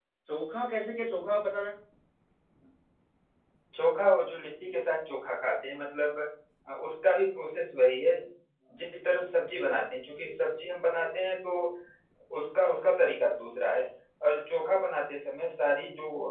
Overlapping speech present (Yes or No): No